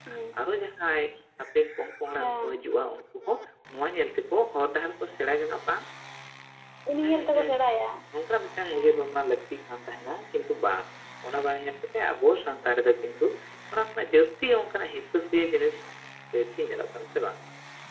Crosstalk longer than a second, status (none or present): none